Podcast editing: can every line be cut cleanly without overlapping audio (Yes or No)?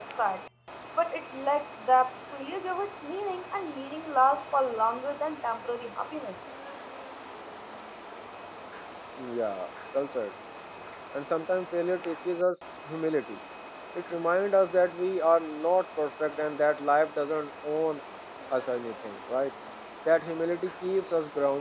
Yes